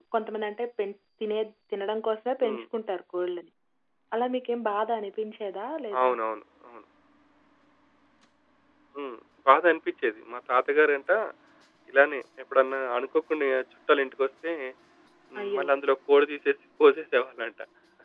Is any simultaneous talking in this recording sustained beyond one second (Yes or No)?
No